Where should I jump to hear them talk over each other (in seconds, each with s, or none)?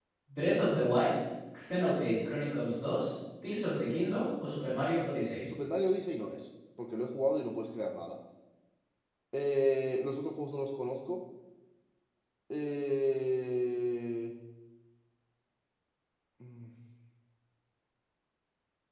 none